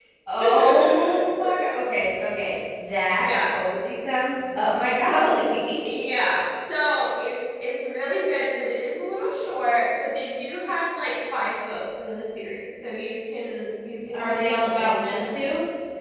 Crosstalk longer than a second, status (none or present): present